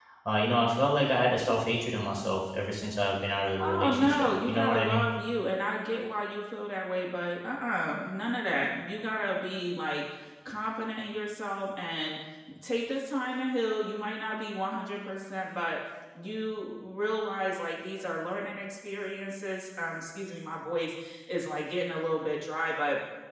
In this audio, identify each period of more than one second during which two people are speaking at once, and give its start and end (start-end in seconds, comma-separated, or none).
3.6-5.0